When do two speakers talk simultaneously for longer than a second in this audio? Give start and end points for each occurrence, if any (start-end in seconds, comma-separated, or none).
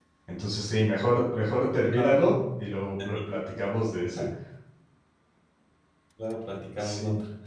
none